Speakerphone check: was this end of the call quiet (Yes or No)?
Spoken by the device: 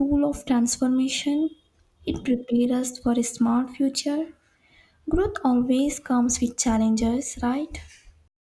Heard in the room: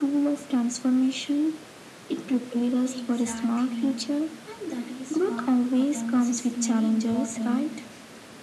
No